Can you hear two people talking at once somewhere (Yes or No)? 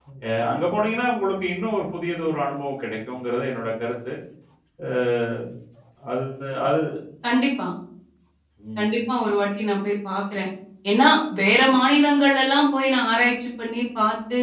No